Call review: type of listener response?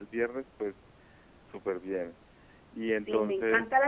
taking over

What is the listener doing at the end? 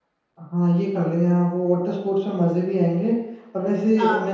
listening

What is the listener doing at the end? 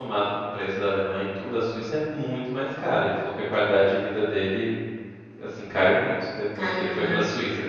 listening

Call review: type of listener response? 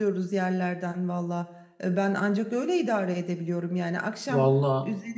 listening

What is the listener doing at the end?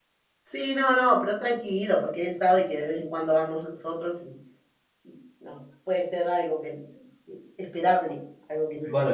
taking over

